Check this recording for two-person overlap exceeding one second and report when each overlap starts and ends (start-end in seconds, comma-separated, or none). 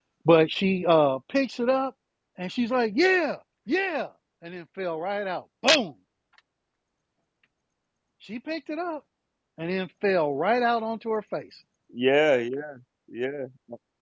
none